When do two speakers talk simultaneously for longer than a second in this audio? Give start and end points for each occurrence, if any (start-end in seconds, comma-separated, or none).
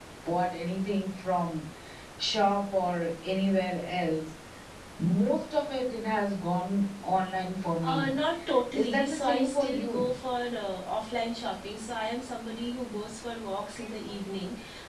8.8-10.1